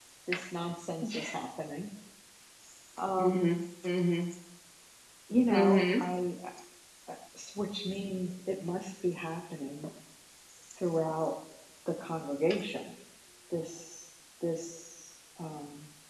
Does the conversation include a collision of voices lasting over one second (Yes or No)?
No